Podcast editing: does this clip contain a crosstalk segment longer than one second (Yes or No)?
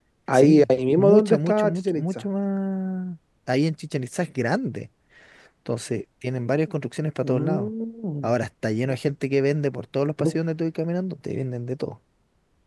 Yes